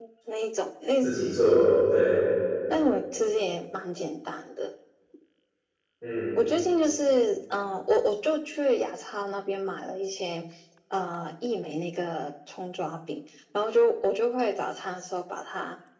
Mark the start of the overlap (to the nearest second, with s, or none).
none